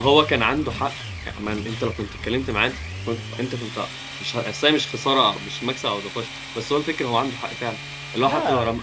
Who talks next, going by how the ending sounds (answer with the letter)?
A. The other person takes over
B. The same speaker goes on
B